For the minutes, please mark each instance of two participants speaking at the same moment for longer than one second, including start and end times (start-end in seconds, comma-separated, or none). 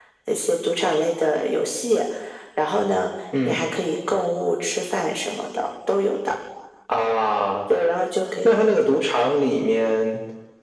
none